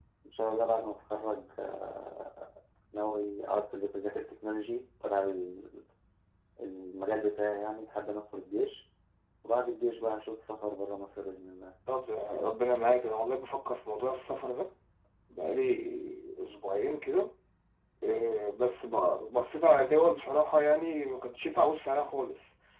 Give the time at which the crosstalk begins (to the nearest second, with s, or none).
none